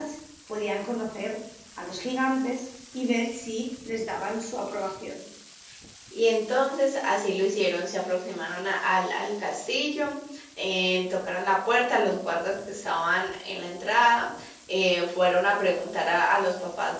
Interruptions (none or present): none